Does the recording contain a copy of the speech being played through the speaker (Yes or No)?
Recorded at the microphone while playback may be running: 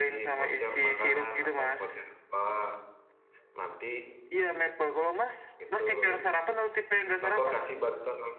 Yes